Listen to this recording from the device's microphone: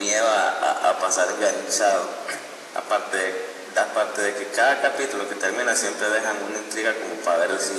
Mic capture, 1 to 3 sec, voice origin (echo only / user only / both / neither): echo only